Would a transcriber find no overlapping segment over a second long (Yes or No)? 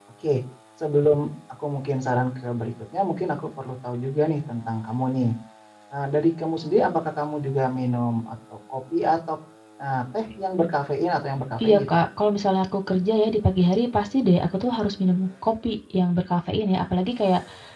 Yes